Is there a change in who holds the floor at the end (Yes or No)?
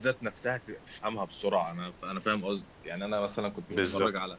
No